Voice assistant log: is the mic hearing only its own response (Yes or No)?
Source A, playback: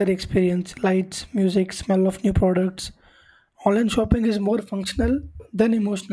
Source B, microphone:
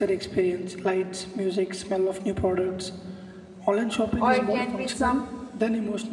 No